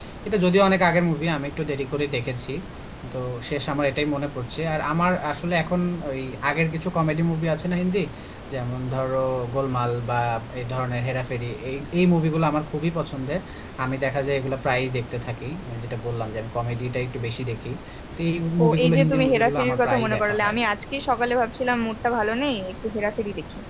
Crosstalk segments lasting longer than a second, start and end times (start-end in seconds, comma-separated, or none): 18.6-20.6